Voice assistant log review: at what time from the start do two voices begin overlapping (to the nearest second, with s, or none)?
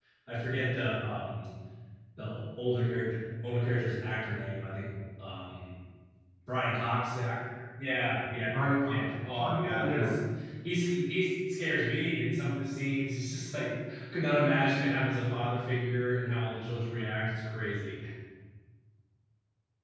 9 s